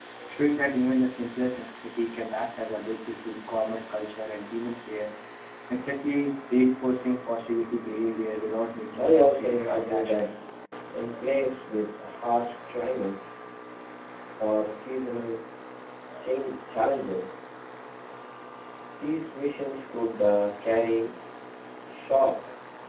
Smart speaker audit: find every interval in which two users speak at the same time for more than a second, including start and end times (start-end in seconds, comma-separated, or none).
9.0-10.3